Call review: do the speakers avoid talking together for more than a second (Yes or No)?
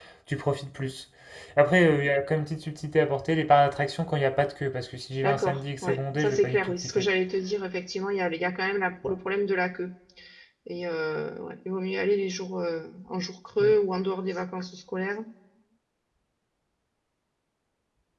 No